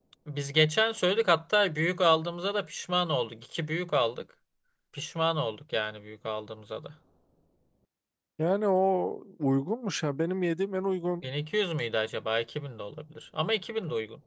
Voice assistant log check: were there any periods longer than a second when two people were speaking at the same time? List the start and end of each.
none

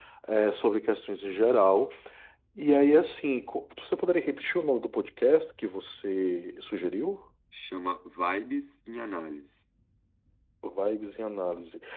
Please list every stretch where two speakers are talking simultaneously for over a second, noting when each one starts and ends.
none

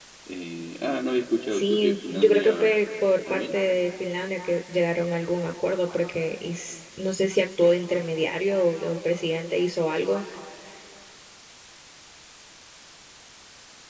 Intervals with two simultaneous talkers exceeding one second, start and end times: 1.5-2.7

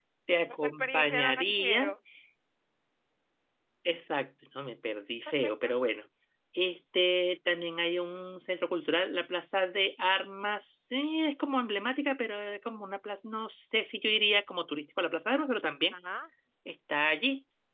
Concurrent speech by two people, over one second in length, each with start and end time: 0.6-1.9

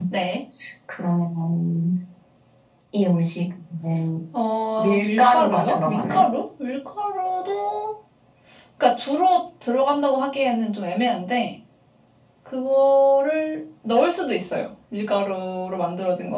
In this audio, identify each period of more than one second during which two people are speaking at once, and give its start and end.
4.8-6.3

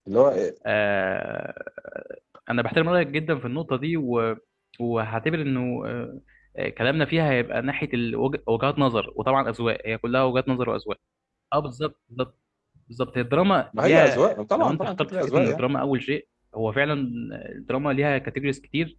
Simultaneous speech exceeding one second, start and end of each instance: 13.8-15.6

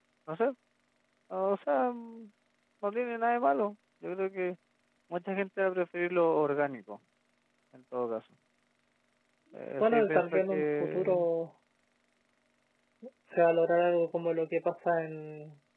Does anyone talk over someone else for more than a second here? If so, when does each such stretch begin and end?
9.8-11.2

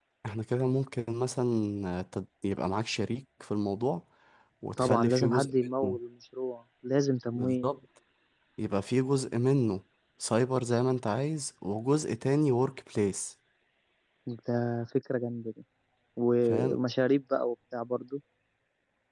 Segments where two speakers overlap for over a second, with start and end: 4.8-6.0

